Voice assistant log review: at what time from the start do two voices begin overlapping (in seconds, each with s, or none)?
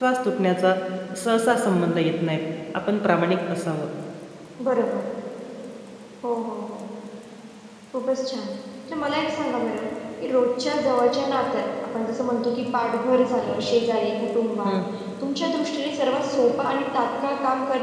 none